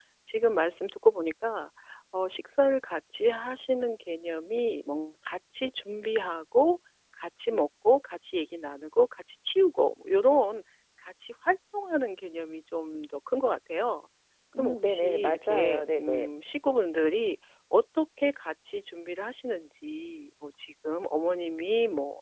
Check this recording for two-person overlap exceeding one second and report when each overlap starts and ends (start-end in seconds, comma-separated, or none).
14.6-16.3